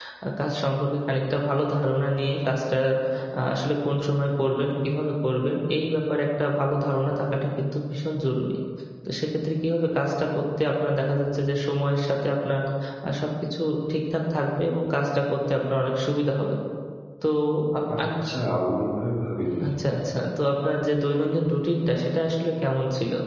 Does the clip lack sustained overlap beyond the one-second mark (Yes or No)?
Yes